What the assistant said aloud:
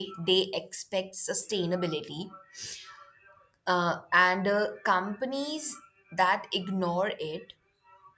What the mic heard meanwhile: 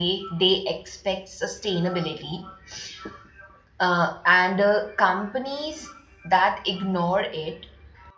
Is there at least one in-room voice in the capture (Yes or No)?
No